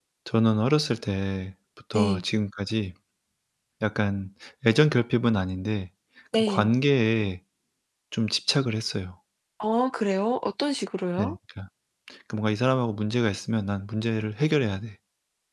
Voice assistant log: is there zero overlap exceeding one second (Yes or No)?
Yes